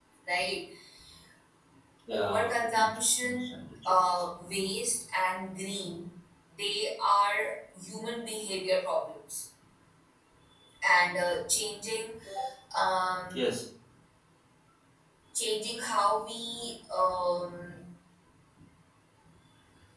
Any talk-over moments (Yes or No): Yes